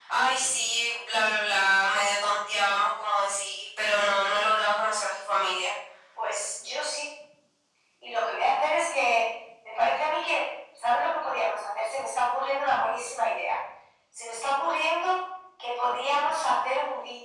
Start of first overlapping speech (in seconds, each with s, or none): none